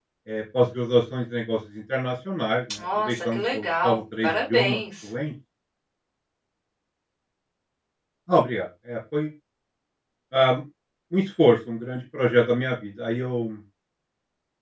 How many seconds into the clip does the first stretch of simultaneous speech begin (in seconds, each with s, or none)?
2.7 s